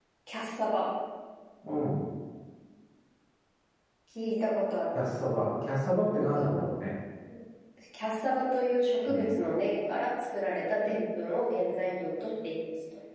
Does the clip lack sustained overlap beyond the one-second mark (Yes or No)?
Yes